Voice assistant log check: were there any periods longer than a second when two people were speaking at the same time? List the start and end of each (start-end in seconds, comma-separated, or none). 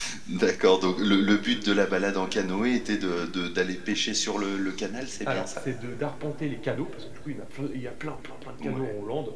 none